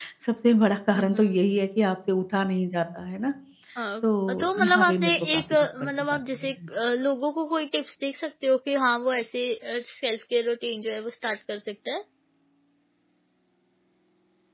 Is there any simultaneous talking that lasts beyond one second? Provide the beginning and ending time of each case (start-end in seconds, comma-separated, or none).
4.4-6.5